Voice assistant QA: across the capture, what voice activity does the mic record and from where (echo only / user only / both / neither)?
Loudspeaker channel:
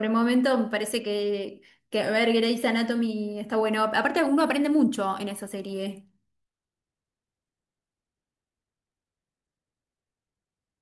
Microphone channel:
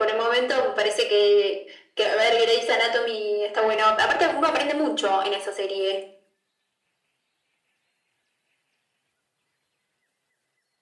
echo only